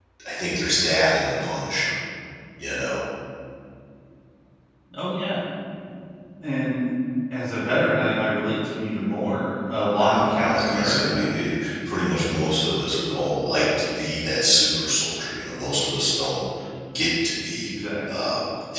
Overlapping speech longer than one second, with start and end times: 10.0-11.2

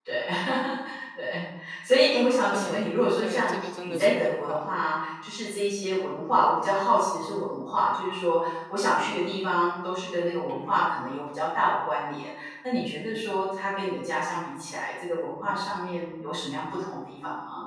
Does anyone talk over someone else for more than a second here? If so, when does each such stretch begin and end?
2.5-4.7

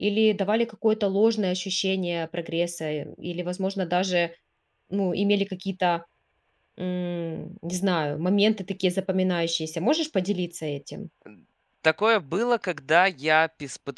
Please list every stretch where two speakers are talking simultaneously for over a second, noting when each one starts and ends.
none

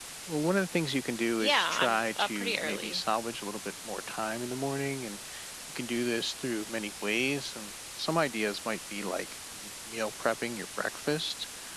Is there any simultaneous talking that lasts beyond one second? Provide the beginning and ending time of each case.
1.4-3.0

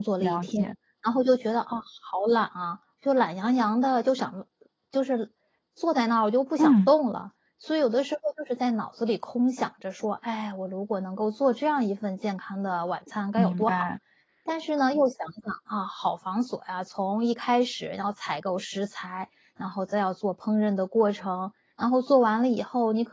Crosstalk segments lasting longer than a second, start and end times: none

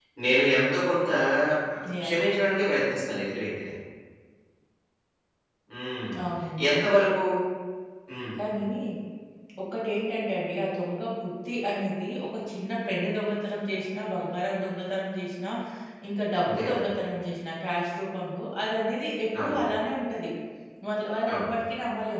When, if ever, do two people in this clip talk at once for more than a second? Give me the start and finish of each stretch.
none

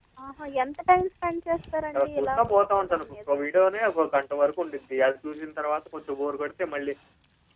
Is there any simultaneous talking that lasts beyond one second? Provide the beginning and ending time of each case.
1.9-3.3

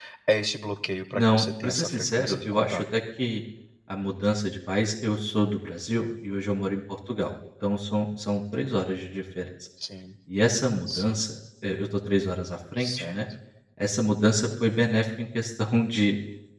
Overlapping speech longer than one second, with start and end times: 1.1-2.8

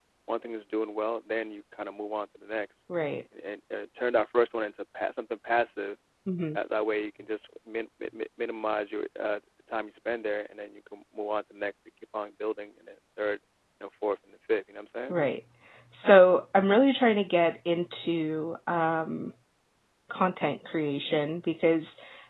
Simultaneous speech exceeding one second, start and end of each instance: none

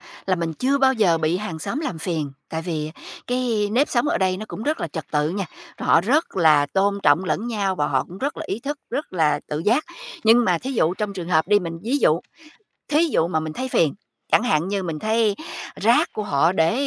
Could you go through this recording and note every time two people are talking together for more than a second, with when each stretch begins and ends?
none

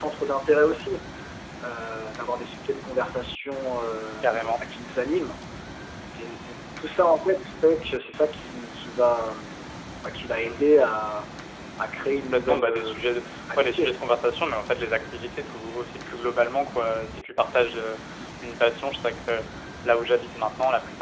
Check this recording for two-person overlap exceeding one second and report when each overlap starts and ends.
12.2-14.0

